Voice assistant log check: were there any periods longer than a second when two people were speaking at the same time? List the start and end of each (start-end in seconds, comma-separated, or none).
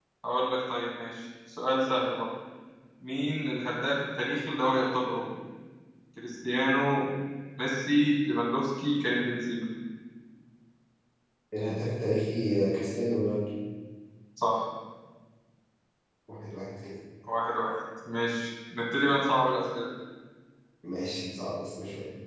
none